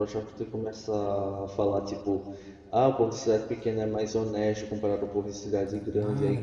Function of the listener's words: taking over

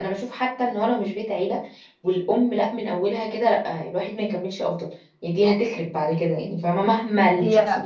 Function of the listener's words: listening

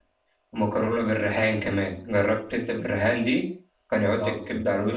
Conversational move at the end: taking over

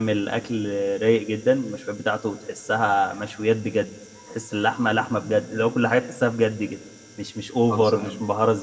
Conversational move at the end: listening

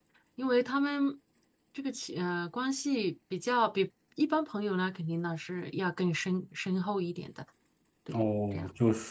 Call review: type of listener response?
taking over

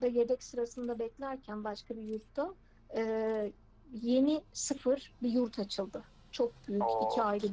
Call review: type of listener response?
listening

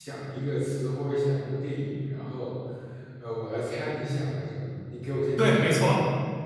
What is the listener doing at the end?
taking over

